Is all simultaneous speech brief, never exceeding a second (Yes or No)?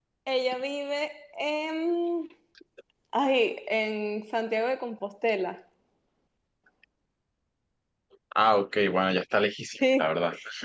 Yes